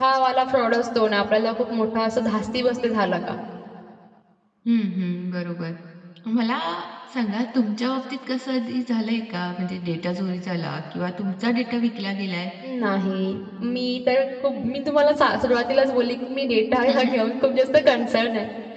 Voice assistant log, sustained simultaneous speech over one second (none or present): none